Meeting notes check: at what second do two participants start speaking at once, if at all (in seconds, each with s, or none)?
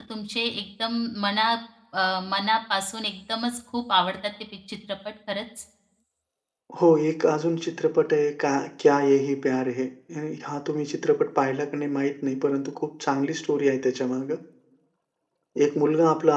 none